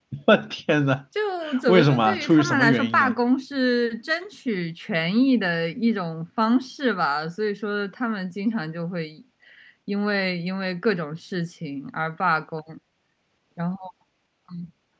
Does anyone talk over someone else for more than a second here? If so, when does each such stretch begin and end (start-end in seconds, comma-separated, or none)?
1.7-3.2